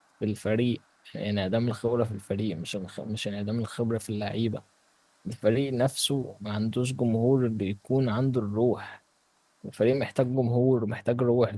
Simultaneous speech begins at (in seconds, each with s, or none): none